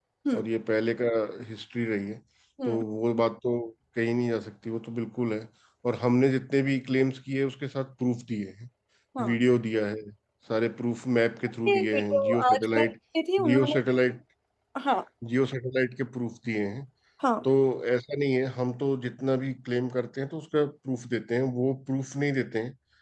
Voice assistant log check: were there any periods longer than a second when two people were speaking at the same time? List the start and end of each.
11.7-12.9

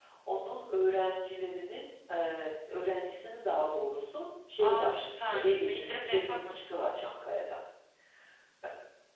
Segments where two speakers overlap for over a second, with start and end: 4.6-6.8

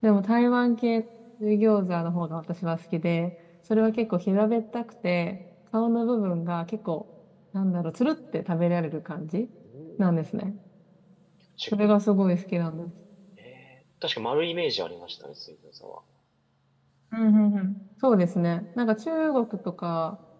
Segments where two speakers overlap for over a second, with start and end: none

